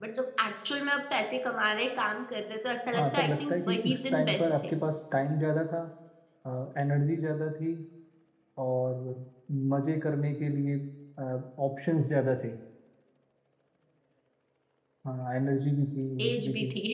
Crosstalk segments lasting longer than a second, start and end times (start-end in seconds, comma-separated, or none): 2.9-4.7